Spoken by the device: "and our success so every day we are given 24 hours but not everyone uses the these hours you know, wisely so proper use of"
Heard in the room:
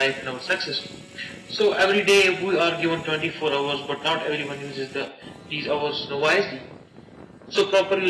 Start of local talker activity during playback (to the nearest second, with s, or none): none